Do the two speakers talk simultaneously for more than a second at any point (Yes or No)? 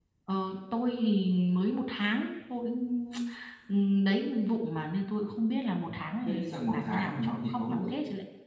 Yes